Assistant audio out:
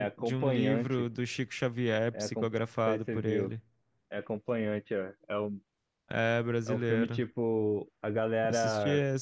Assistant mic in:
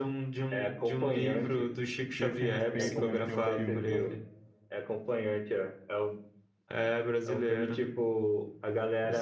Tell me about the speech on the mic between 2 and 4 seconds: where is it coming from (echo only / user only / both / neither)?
both